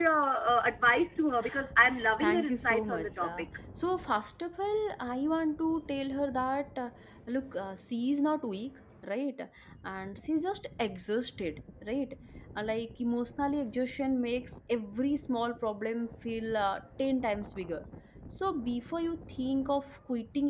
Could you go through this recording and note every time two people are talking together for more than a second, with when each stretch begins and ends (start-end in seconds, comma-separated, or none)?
2.2-3.4